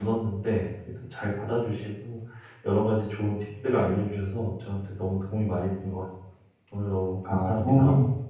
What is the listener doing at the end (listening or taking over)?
taking over